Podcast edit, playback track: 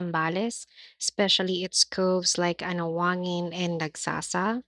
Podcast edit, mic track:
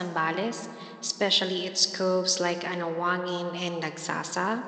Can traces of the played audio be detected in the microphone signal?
Yes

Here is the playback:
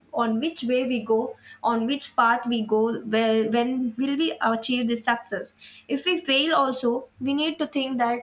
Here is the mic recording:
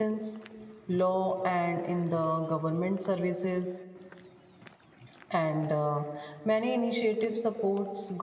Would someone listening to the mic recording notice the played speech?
No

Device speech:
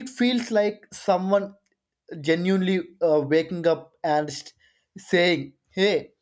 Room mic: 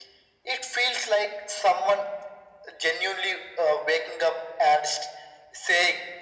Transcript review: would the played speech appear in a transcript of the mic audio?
Yes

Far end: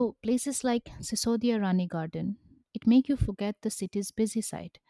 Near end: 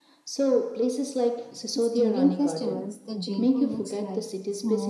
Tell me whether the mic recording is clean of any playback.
No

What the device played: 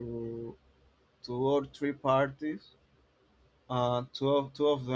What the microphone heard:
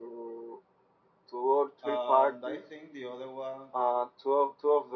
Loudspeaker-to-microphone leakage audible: Yes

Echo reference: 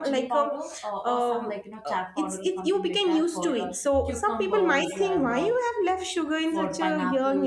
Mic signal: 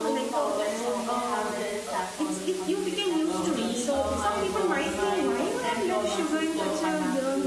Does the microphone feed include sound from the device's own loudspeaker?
Yes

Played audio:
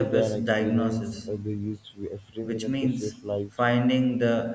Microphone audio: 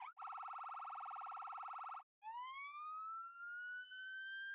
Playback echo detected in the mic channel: No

